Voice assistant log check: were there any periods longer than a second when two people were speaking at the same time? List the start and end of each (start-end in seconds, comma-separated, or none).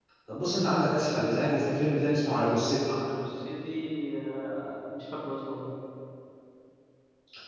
none